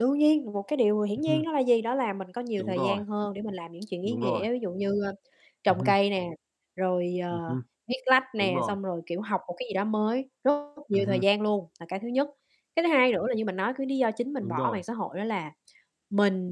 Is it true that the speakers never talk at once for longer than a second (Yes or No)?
Yes